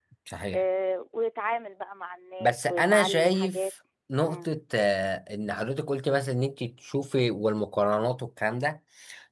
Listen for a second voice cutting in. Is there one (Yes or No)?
Yes